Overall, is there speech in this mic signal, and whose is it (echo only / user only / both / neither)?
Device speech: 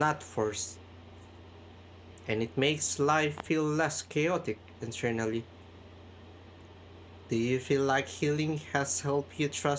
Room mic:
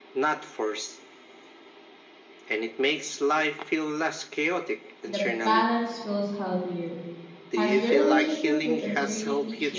both